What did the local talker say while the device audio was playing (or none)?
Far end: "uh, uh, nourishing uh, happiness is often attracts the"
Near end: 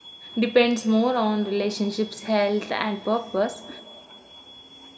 depends more on relationships, health, and purpose.